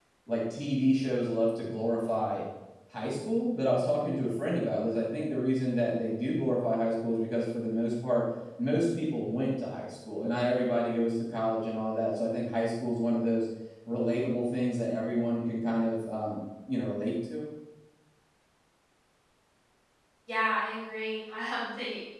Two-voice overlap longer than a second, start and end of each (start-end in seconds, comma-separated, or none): none